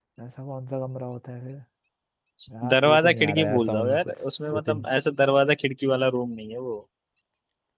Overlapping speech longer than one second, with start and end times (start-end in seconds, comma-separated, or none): 2.7-4.7